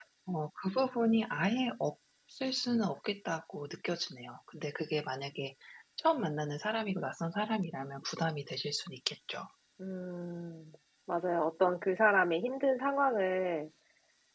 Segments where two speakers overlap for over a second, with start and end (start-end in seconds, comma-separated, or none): none